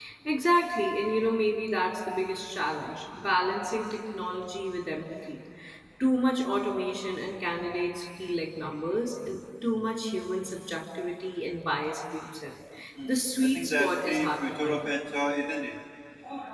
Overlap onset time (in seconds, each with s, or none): 13.0 s